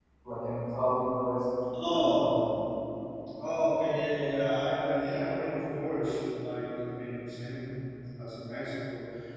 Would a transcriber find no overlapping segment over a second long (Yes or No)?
Yes